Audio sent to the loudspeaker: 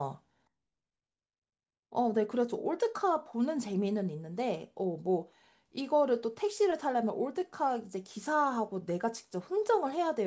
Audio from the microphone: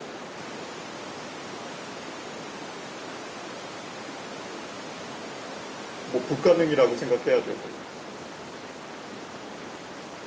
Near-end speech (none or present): present